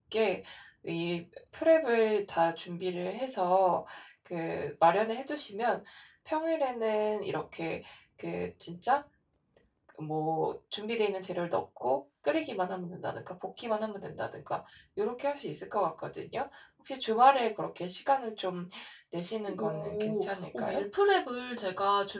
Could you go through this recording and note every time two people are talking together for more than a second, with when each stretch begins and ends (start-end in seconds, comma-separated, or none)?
19.6-20.8